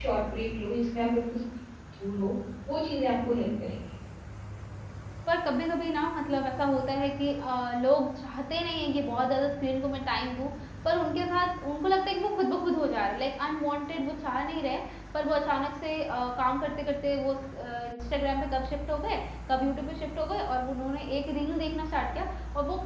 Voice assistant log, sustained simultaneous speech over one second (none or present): none